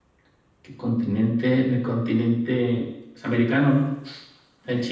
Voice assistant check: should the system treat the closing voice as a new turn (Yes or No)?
No